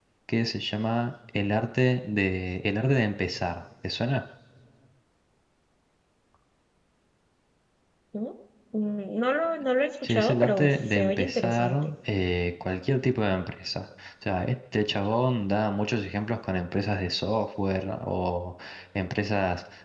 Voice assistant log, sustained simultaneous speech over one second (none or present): present